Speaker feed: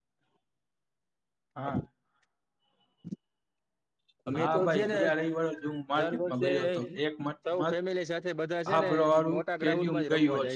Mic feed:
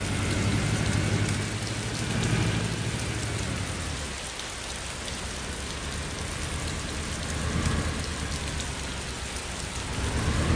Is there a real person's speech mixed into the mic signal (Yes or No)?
No